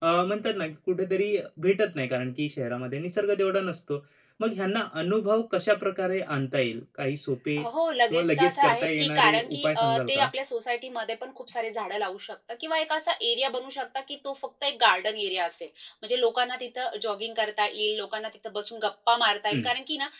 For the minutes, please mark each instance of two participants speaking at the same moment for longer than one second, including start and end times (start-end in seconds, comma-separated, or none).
8.1-10.3